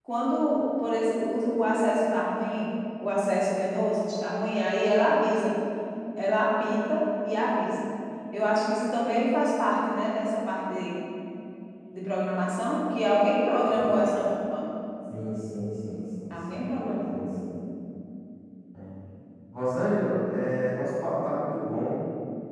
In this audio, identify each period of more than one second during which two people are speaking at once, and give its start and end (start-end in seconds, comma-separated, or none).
none